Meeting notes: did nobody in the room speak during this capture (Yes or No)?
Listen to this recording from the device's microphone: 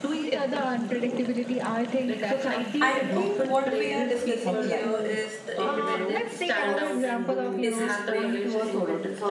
No